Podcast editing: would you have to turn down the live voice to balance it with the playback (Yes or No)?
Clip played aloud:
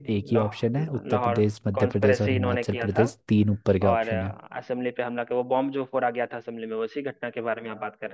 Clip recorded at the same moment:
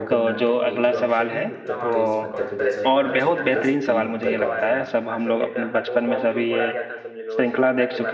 Yes